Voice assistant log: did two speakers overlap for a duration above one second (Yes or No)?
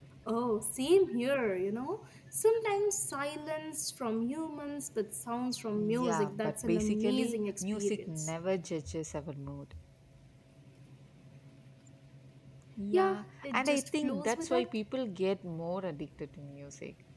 Yes